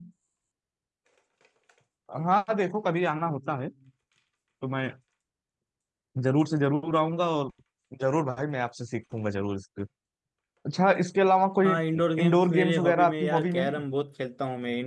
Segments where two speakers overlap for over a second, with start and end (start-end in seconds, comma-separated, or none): 12.2-13.8